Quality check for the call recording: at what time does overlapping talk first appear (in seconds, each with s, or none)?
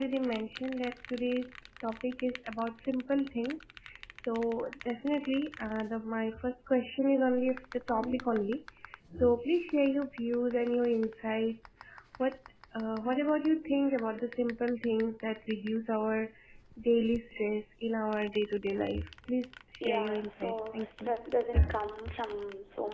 19.8 s